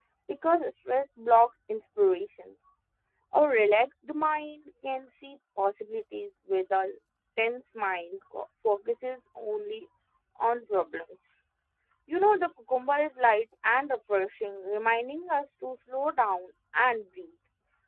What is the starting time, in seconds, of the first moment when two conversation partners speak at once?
none

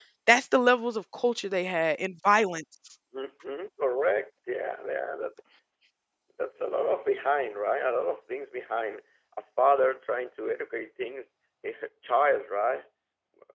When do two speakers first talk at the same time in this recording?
none

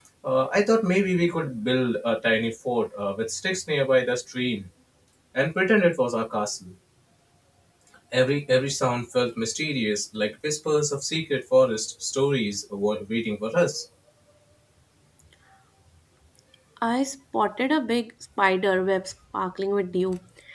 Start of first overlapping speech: none

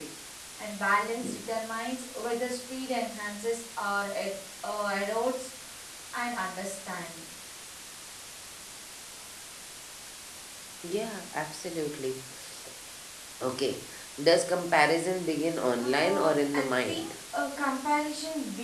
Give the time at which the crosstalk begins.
15.8 s

